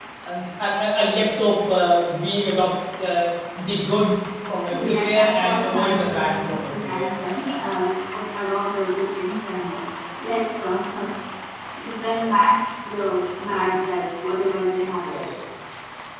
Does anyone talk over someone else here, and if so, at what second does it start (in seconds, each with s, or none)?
4.7 s